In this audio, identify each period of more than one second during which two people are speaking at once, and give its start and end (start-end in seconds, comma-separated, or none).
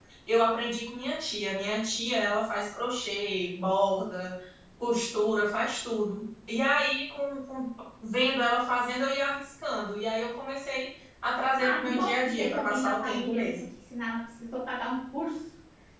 11.6-13.6